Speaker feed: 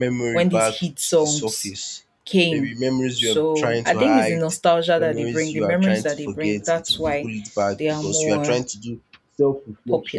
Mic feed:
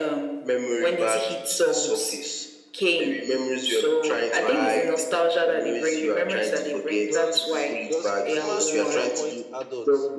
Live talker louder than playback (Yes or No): No